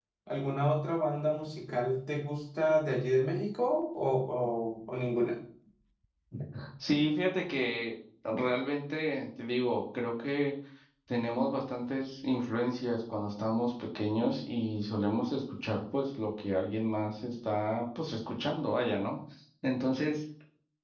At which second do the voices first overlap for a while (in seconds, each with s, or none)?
none